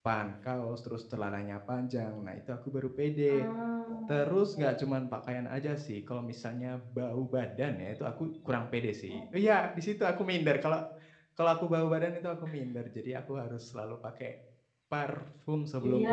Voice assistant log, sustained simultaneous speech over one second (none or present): none